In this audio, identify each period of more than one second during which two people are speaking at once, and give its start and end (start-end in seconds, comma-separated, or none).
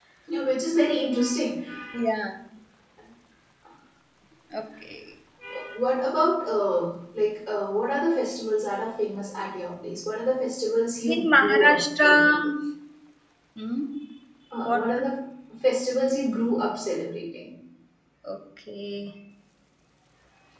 11.1-12.3